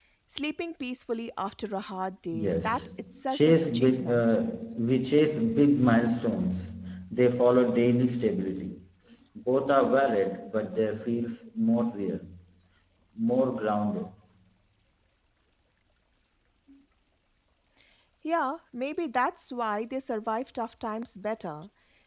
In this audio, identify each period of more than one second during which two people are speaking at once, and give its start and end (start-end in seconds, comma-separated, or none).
2.3-4.2